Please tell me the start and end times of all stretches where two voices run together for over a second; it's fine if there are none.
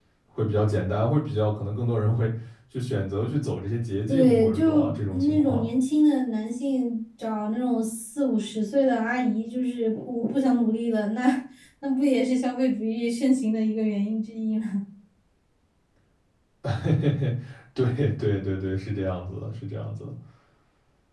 4.1-5.7

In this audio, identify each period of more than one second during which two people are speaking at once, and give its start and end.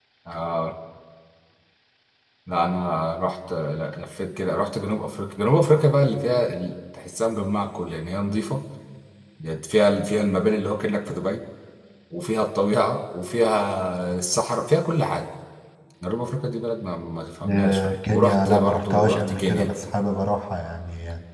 17.5-19.7

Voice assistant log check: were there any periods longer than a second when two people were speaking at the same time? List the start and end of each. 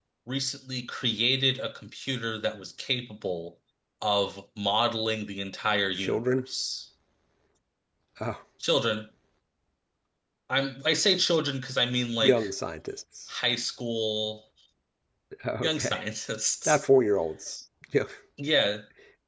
none

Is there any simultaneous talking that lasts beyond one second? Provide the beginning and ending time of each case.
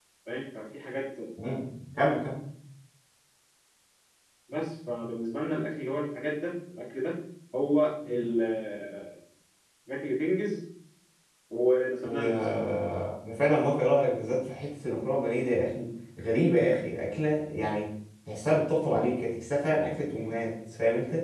none

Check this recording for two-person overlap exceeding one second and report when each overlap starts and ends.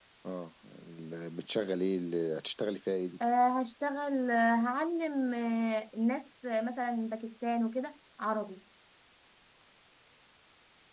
none

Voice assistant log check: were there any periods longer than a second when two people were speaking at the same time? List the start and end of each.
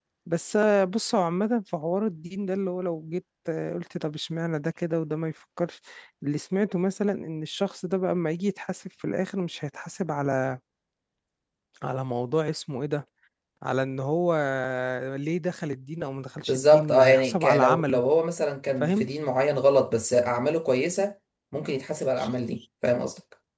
16.5-18.0

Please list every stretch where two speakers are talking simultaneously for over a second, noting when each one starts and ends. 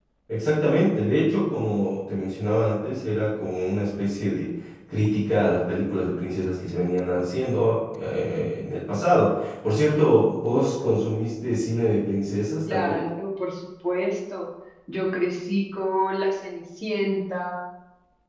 none

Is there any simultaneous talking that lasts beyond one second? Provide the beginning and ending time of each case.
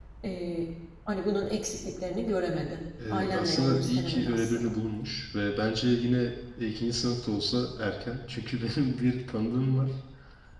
3.1-4.8

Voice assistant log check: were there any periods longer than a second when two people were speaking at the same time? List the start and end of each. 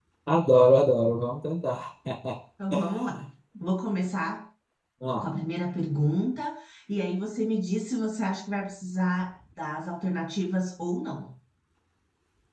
none

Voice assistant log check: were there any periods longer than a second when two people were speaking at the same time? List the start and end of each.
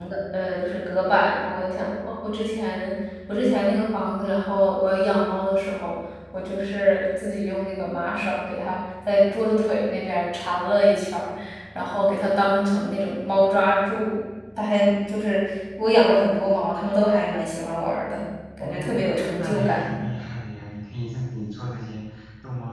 18.6-20.0

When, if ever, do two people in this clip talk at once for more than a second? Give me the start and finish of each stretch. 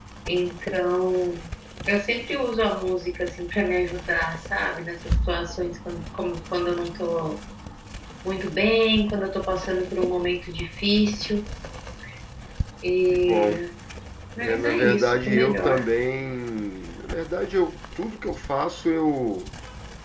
14.4-15.9

